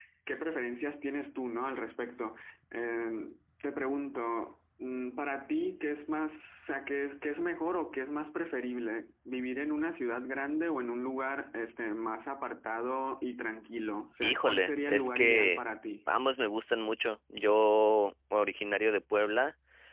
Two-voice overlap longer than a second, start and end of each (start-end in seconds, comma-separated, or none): 14.2-15.6